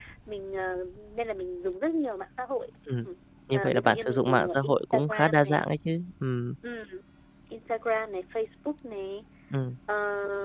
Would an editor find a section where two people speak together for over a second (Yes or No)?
Yes